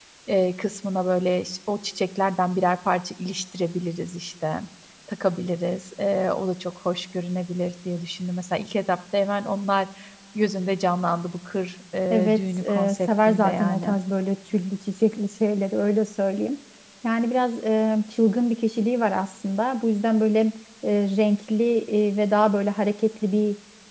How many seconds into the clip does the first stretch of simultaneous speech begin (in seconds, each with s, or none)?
12.1 s